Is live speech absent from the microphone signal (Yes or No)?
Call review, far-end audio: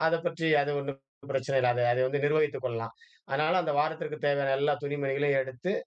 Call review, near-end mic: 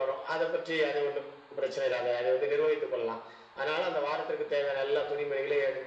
Yes